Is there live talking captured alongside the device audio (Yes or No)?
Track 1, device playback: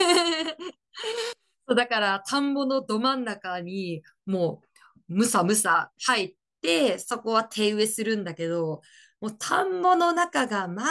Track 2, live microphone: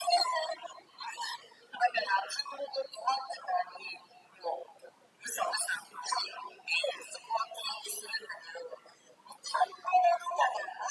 No